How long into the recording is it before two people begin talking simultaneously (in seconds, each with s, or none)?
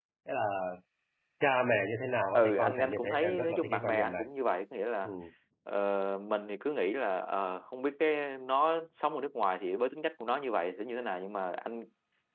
2.3 s